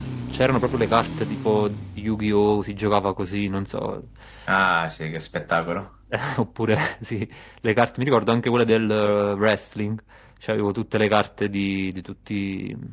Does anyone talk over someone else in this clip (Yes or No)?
No